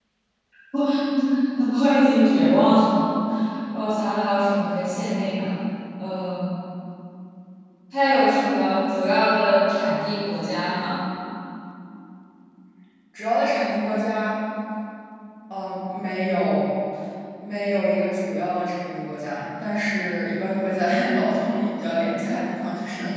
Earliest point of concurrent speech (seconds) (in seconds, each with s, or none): none